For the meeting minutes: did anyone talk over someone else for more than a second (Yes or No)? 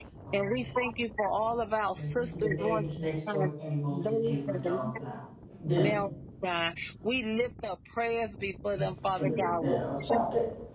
Yes